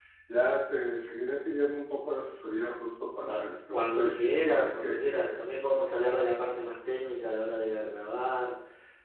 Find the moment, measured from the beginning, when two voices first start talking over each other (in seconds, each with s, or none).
3.3 s